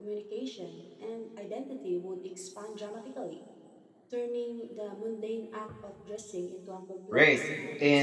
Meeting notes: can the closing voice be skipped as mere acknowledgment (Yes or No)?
No